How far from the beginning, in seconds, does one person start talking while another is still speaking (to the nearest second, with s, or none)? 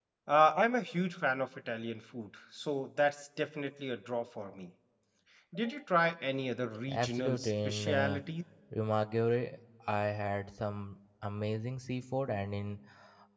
7 s